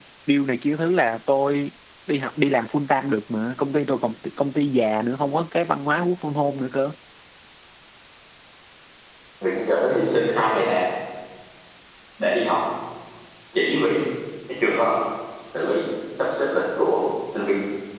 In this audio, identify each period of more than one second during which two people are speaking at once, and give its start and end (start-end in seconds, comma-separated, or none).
none